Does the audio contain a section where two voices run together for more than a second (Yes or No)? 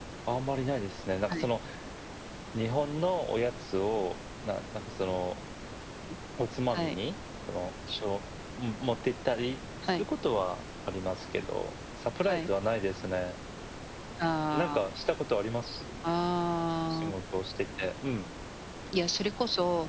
No